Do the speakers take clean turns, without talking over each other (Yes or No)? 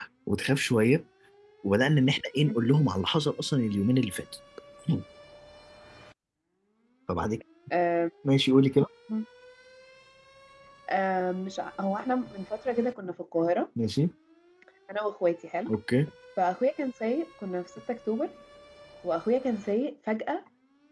Yes